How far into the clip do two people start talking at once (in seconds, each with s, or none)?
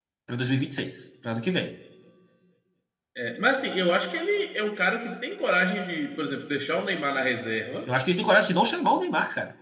none